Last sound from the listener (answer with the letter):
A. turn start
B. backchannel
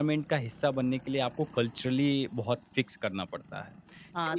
A